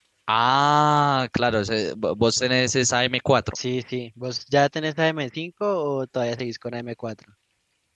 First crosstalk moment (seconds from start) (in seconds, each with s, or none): none